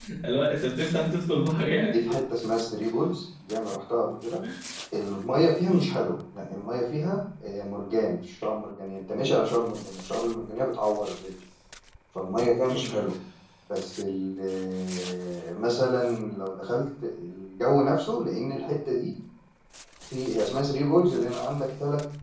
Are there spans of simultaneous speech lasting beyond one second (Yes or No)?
No